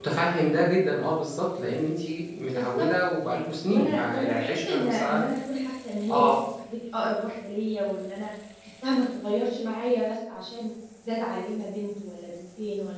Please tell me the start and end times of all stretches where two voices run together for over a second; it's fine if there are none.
3.7-5.2

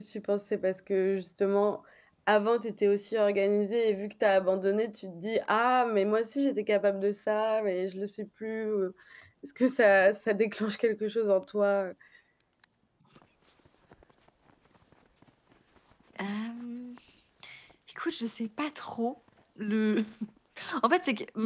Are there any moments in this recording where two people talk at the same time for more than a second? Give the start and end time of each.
none

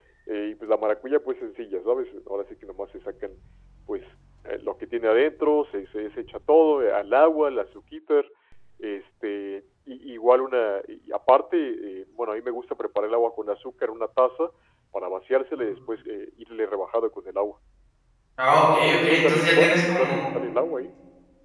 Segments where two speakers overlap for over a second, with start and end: 18.6-20.2

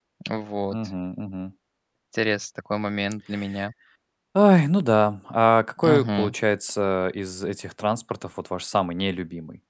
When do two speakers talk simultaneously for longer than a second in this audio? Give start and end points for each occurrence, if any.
none

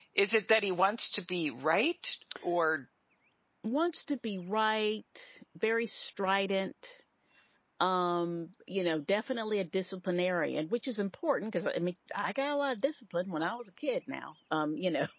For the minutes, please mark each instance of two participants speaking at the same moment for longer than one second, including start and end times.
none

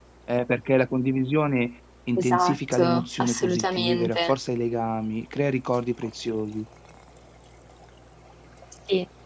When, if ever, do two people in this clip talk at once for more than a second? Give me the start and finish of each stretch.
2.2-4.3

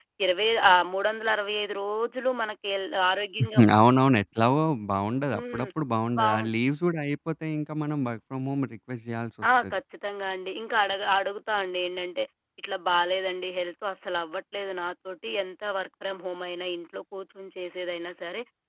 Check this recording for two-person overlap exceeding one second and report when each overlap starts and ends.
none

